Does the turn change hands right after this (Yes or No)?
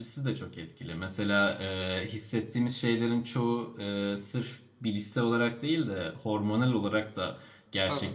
No